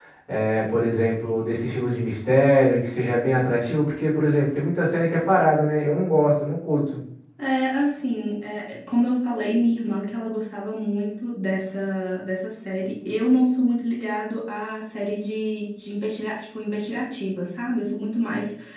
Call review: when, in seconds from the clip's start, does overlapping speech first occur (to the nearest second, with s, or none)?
none